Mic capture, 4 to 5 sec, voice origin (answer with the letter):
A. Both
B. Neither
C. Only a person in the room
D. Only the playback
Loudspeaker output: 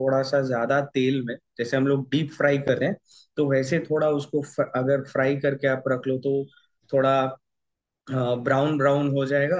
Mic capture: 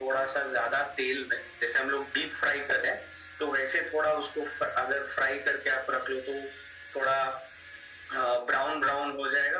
D